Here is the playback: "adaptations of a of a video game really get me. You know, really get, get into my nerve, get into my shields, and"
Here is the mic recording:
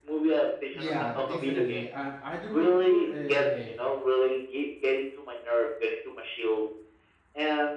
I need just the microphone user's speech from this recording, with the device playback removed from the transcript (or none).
yeah definitely and i do remember uh